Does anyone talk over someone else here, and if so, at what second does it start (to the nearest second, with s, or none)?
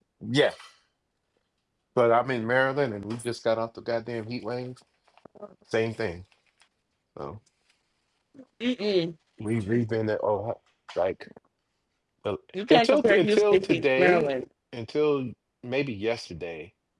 13 s